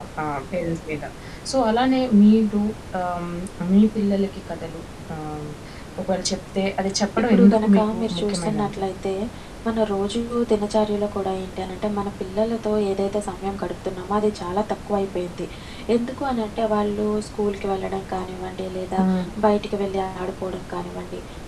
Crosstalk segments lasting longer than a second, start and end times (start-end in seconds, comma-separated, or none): 7.3-8.9